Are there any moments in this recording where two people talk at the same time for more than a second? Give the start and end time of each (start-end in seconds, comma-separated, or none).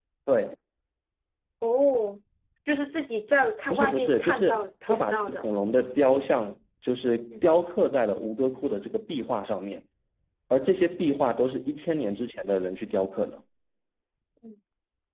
3.7-5.5